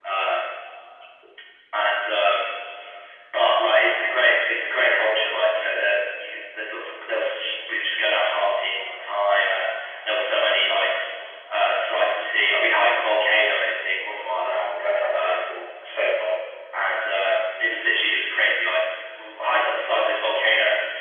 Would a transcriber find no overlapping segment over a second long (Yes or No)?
Yes